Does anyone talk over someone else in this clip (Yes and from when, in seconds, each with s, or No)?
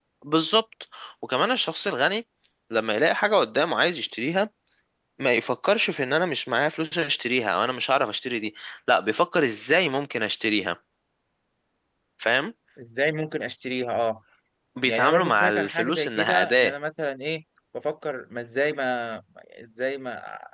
Yes, from 14.8 s